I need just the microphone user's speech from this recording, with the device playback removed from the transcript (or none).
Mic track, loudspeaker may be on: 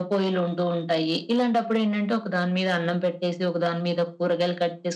none